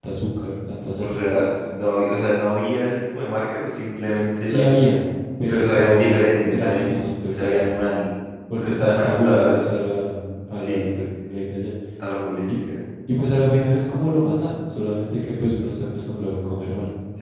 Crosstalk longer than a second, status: present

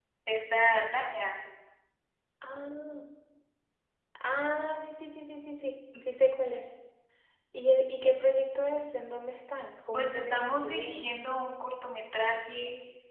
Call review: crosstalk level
present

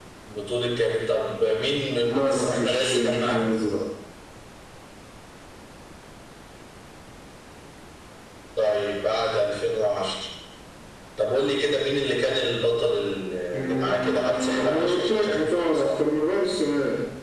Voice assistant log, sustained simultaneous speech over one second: present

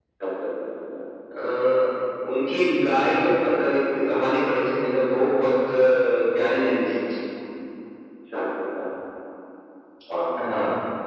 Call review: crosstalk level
none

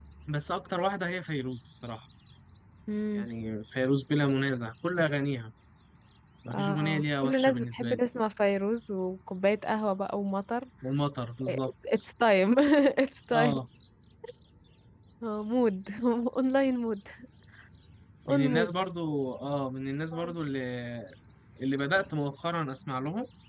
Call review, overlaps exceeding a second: present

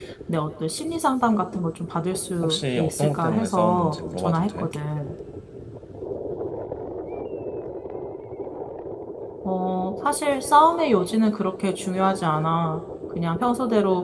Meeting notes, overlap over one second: present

